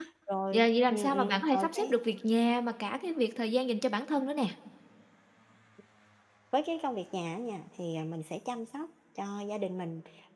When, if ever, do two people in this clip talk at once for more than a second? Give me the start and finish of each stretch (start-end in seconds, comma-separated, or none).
0.5-1.9